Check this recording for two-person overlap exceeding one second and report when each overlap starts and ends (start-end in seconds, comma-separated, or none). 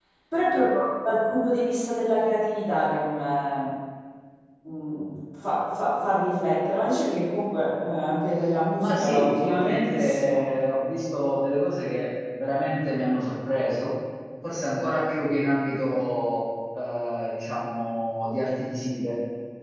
8.8-10.4